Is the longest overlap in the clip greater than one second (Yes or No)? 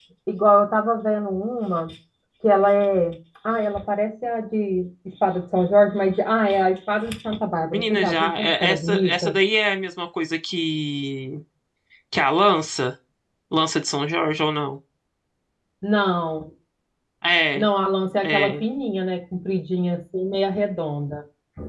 Yes